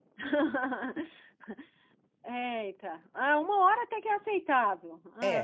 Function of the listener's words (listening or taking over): taking over